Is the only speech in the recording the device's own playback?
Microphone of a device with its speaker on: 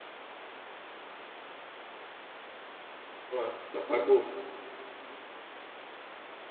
No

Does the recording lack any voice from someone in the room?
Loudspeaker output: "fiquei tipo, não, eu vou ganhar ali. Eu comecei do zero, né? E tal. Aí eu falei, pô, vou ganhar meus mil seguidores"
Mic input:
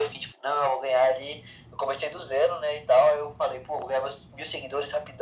Yes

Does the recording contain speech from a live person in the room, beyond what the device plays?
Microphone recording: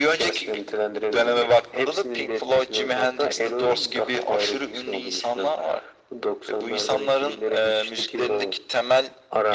No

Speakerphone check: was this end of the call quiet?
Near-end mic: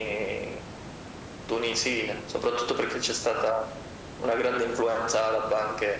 Yes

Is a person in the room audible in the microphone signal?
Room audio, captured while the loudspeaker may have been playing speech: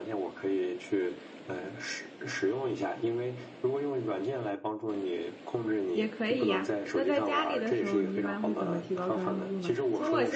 Yes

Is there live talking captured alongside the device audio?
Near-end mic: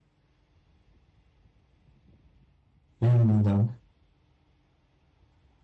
Yes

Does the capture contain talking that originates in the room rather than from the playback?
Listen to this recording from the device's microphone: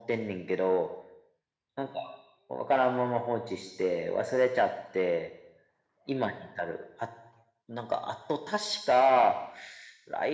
No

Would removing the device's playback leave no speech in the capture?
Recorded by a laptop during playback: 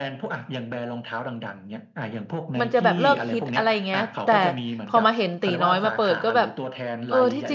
No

